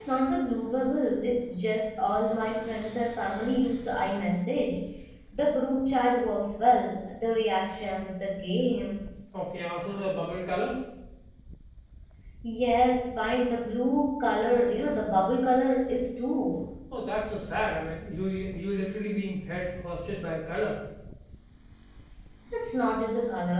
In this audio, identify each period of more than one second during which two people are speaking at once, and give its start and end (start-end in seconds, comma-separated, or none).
none